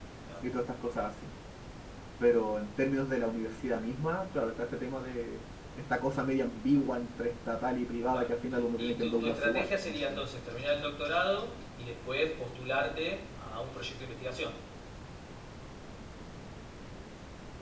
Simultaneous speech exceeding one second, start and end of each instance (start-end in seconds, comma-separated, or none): 8.8-10.2